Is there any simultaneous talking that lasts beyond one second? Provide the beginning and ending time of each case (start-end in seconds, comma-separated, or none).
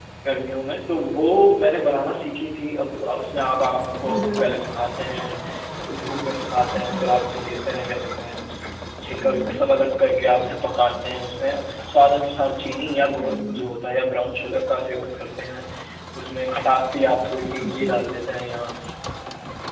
none